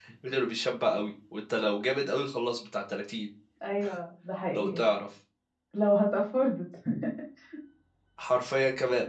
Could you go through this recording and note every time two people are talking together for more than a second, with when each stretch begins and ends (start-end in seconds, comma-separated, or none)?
none